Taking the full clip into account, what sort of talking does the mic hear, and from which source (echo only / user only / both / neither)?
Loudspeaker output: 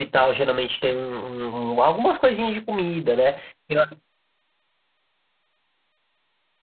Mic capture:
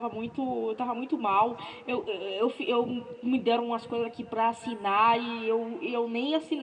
user only